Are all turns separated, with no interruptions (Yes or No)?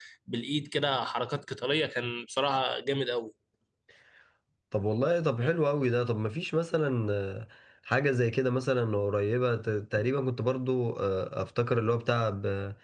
Yes